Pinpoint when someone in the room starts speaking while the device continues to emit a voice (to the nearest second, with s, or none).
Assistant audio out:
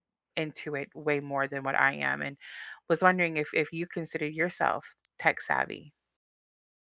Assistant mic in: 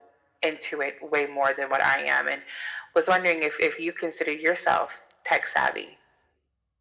none